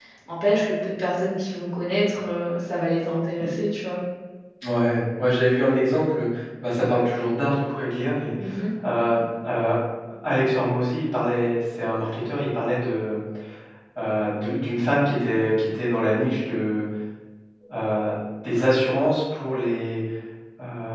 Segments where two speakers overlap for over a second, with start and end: none

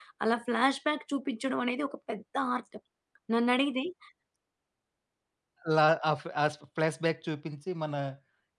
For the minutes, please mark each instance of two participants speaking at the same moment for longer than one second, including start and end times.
none

